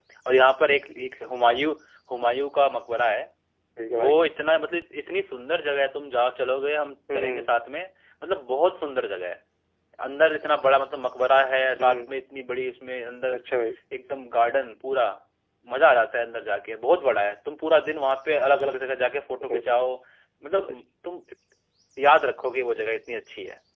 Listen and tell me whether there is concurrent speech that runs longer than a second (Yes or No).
No